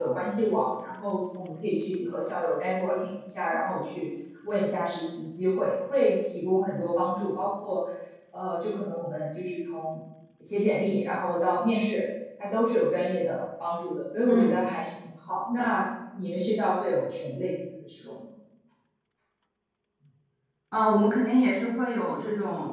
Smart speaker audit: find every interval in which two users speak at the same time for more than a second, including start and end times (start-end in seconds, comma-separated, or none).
none